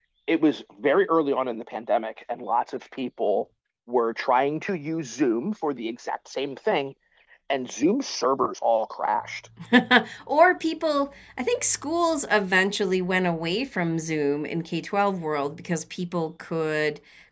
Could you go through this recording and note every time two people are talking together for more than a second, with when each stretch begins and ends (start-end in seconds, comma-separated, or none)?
none